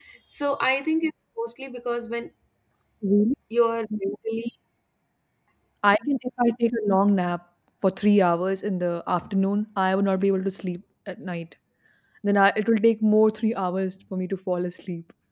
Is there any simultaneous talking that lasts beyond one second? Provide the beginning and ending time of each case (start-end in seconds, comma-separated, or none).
none